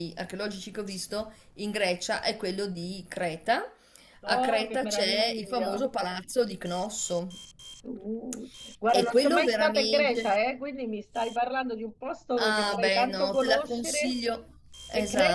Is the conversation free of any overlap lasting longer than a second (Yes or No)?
No